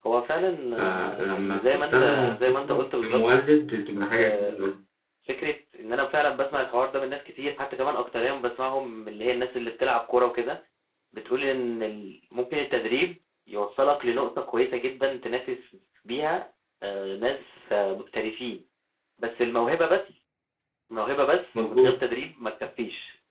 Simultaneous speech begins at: 0.7 s

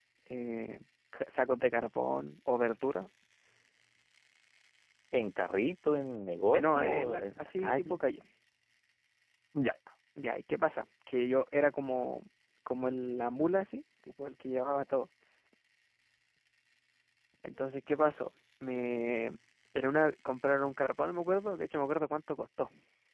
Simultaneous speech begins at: 6.5 s

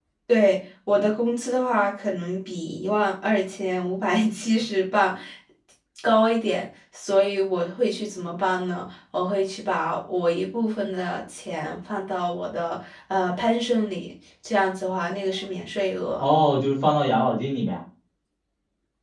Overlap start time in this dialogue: none

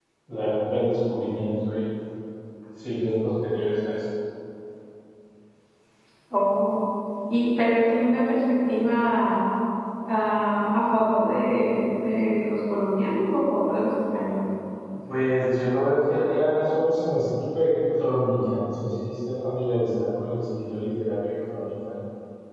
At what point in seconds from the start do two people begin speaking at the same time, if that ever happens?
none

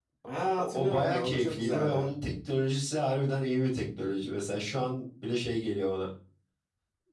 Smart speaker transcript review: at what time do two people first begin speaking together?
0.6 s

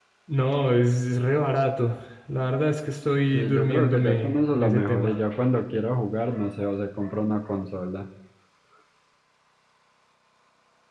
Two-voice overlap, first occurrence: 3.3 s

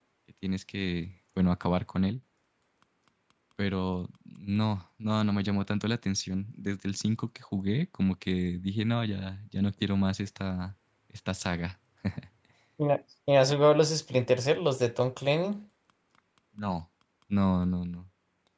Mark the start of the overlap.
none

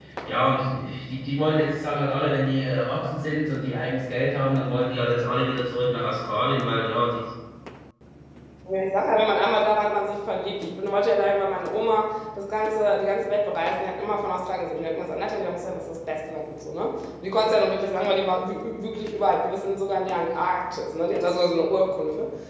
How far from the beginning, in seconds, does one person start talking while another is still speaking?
none

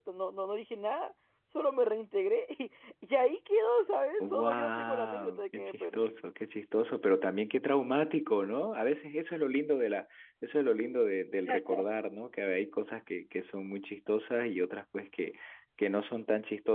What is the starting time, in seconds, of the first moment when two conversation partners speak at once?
4.2 s

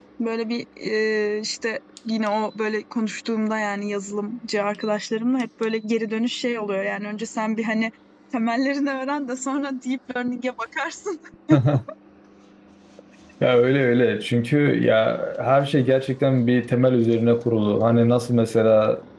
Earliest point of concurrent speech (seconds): none

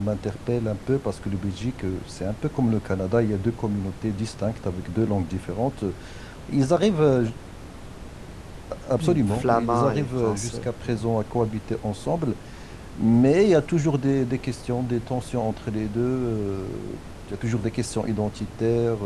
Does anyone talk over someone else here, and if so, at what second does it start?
9.0 s

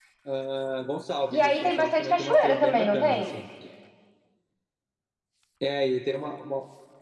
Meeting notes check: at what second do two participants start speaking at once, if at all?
1.3 s

